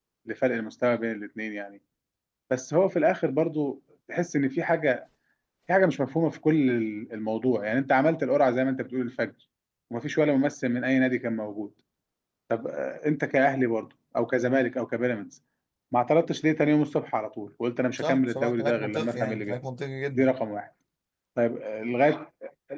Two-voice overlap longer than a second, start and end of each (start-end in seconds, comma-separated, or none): 18.0-19.6